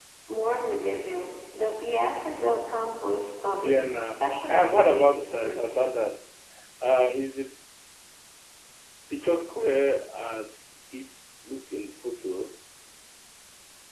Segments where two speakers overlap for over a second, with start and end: 3.5-5.8

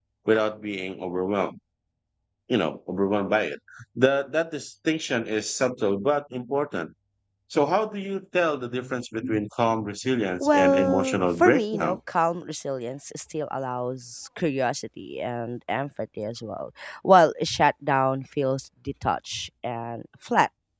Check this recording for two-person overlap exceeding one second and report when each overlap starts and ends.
10.4-12.0

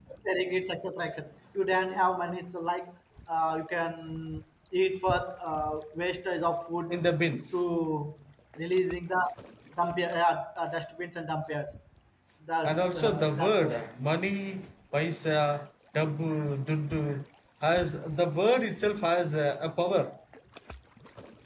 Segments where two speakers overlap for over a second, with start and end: 12.6-13.8

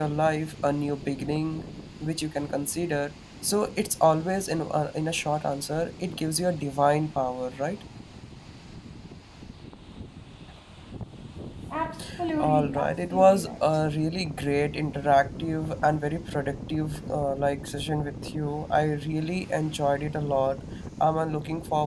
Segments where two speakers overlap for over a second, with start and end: 12.4-13.6

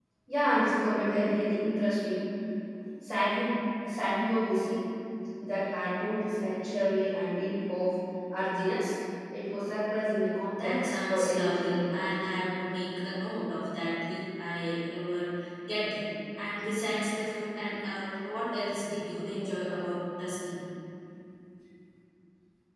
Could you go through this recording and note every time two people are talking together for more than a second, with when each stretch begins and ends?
10.5-12.1

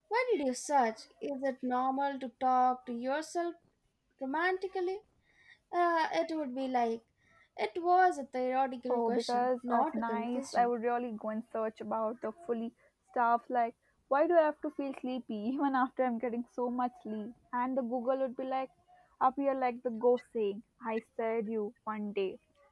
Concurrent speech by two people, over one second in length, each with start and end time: 8.9-10.7

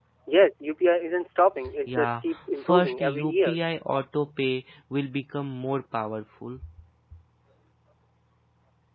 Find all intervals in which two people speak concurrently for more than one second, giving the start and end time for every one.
1.9-3.6

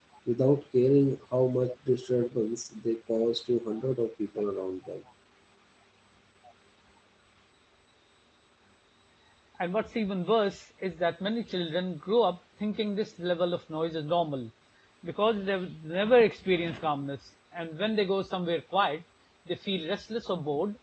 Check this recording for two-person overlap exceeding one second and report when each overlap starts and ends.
none

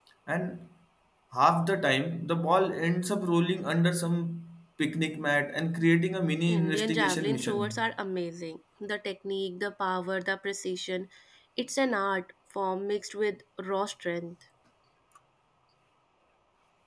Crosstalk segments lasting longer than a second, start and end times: 6.5-7.8

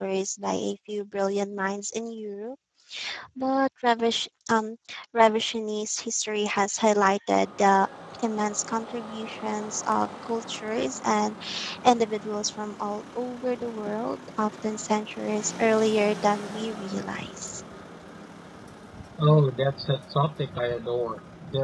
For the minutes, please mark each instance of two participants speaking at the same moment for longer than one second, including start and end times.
none

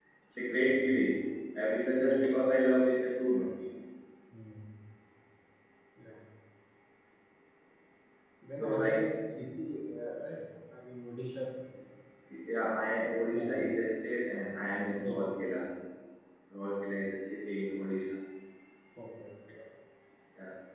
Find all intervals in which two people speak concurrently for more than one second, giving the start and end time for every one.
none

